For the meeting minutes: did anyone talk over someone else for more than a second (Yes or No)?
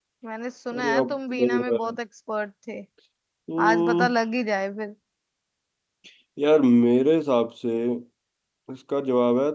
Yes